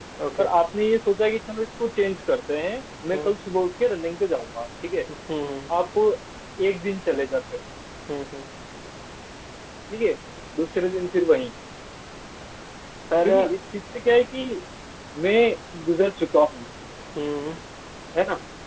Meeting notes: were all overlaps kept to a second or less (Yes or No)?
Yes